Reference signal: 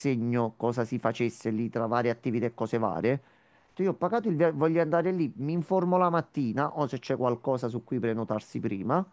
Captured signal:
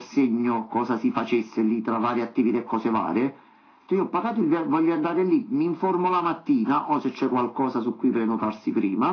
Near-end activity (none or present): none